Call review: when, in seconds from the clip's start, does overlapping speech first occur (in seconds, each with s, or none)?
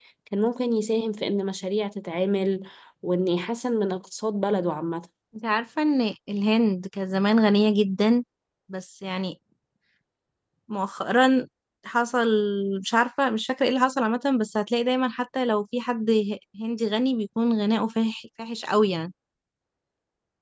none